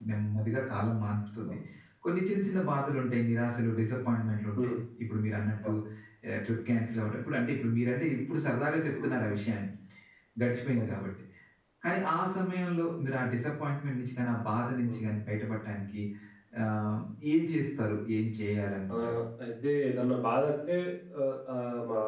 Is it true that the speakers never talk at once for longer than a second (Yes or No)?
Yes